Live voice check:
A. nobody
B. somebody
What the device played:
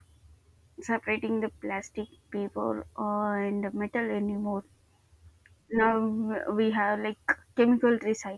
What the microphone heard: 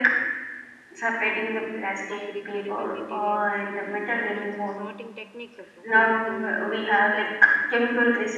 B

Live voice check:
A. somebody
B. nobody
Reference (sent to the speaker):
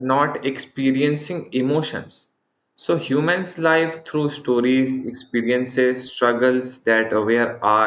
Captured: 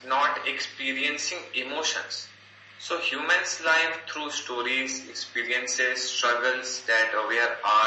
B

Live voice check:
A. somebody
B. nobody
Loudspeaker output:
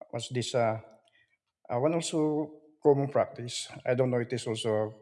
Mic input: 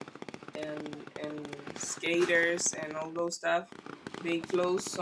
A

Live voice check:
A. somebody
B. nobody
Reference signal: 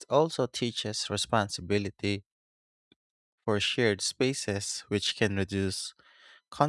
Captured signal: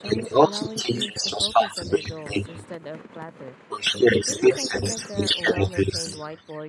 A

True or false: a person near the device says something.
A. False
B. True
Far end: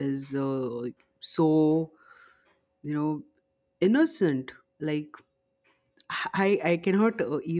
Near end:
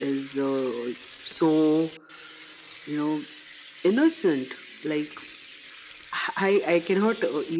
A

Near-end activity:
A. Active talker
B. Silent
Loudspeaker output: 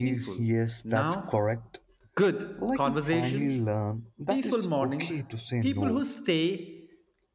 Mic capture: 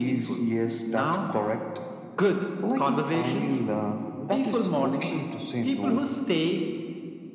B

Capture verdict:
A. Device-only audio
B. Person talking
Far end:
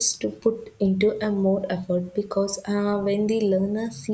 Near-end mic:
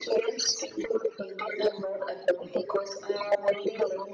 A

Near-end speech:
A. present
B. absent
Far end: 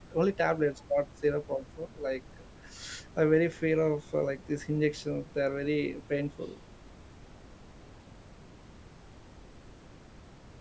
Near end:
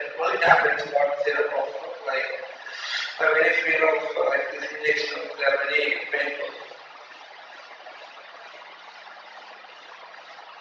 B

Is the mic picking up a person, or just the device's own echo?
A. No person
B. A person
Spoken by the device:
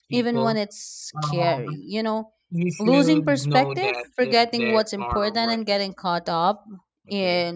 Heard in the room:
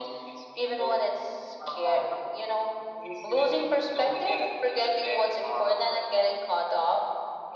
A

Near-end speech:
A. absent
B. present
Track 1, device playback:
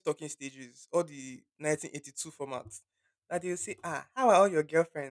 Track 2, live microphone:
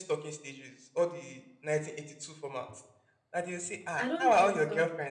B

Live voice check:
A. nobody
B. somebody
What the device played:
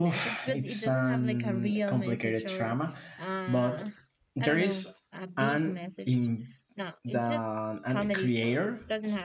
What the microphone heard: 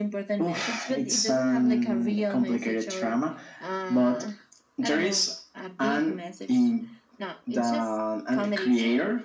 A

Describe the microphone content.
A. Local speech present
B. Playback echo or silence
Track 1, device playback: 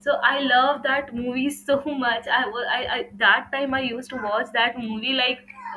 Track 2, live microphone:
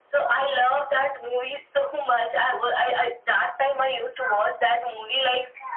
B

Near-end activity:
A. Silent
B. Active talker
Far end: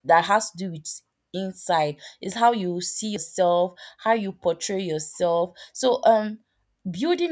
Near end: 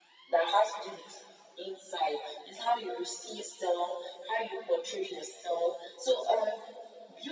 A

